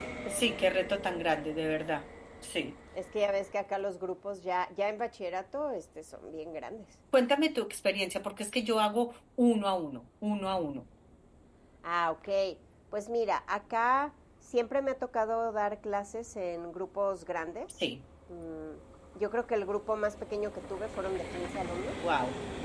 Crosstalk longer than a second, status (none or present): none